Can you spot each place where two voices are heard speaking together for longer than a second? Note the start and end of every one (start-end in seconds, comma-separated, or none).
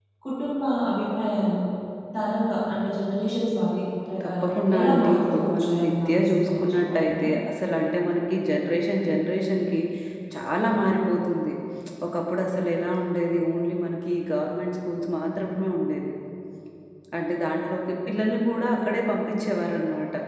4.2-7.3